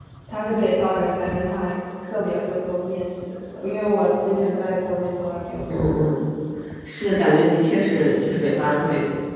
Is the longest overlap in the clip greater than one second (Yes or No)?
No